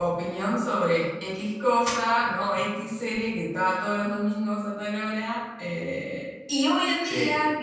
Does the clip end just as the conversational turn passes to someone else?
No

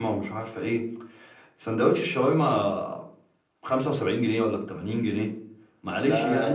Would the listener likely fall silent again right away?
Yes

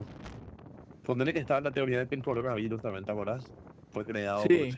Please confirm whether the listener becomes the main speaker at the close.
No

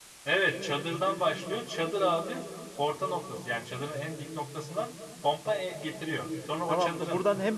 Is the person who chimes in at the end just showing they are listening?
No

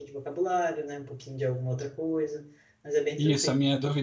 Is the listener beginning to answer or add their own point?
Yes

